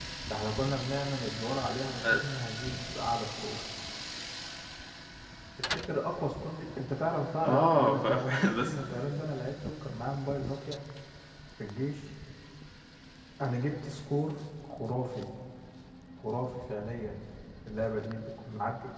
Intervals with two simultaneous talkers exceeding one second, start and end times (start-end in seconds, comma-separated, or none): 7.4-8.7